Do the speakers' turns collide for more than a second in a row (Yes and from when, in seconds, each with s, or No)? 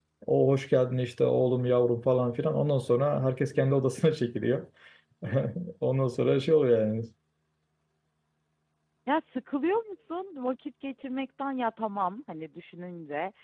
No